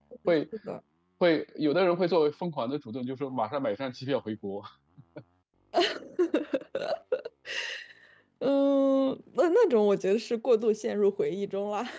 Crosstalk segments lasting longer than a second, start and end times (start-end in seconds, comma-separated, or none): none